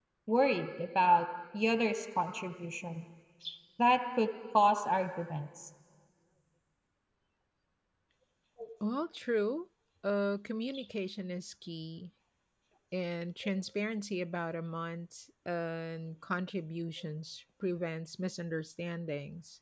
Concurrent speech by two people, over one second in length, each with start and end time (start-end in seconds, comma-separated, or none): none